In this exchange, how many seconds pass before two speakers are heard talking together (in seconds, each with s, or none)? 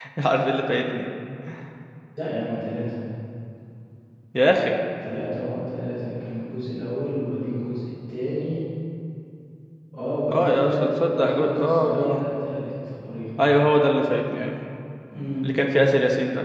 10.3 s